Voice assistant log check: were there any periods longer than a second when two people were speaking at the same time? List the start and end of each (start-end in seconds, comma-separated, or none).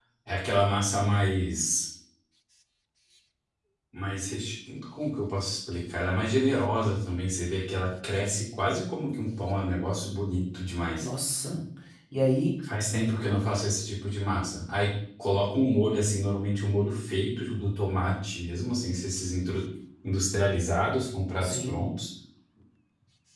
none